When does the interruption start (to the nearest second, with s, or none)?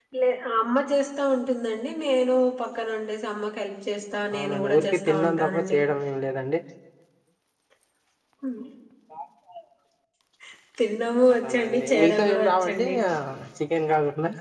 4 s